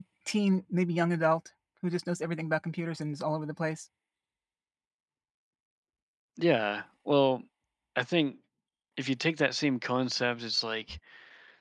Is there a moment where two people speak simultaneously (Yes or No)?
No